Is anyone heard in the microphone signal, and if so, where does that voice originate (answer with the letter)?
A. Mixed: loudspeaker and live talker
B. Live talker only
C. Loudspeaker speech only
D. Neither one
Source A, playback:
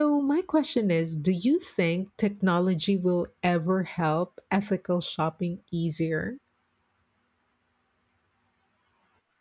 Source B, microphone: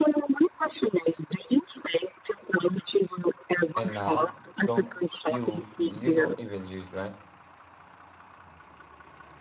A